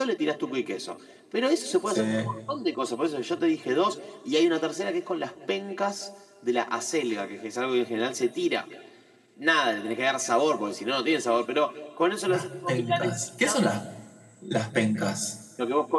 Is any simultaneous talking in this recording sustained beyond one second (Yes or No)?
Yes